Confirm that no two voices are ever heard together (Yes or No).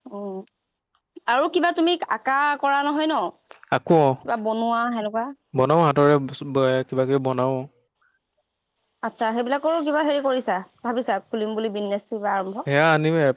Yes